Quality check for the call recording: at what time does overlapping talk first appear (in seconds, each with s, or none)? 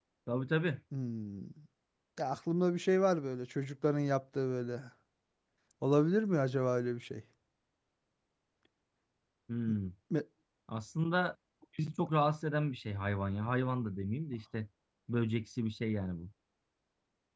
none